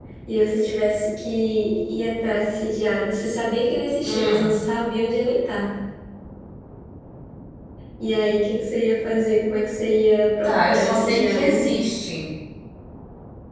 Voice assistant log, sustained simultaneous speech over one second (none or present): present